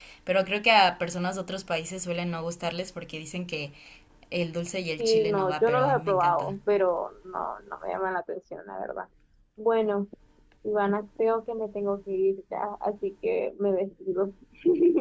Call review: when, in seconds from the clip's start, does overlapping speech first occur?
5.0 s

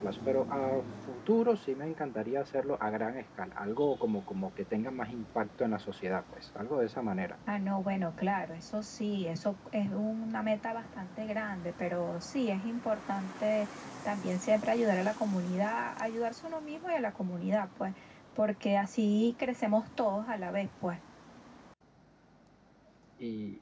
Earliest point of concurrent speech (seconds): none

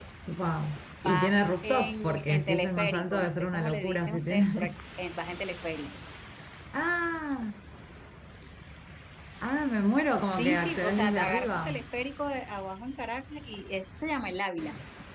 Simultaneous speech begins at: 1.0 s

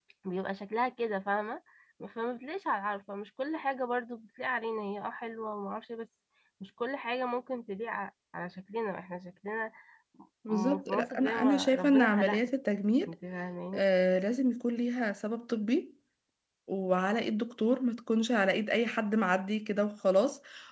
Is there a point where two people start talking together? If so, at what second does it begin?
10.5 s

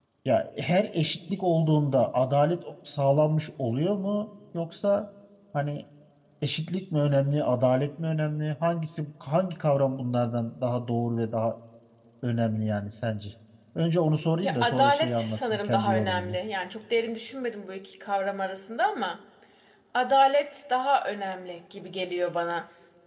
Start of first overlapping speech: 14.4 s

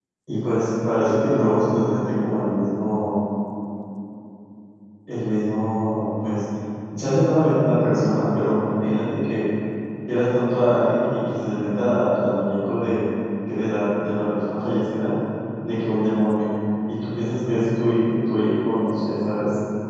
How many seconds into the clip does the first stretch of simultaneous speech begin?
none

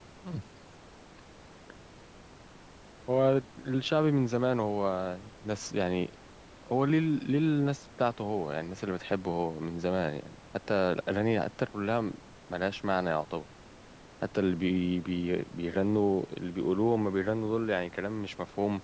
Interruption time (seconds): none

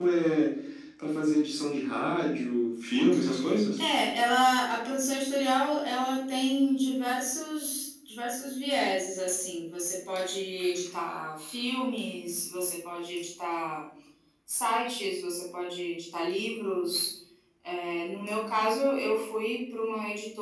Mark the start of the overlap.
none

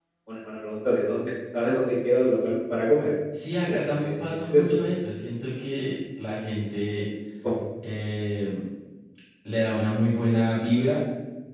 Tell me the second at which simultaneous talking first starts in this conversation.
3.3 s

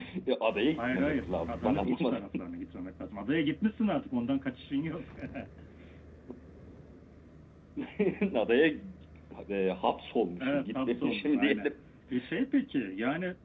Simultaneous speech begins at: 0.8 s

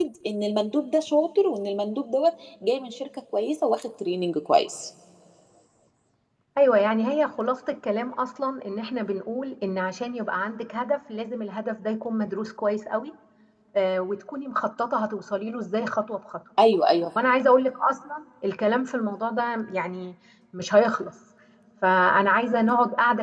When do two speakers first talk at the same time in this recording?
none

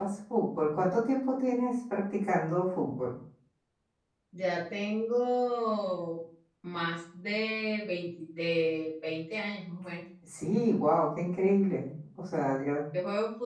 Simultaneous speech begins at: none

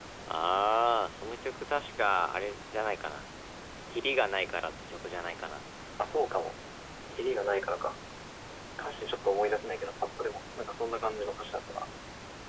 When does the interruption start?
none

